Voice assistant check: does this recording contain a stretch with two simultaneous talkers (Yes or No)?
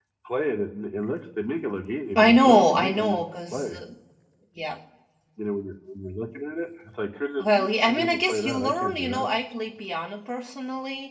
Yes